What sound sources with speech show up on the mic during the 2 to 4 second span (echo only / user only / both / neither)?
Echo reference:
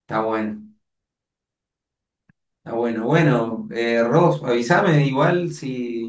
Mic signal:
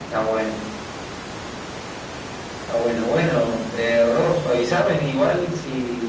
echo only